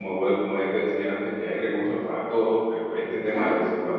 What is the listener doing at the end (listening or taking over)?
listening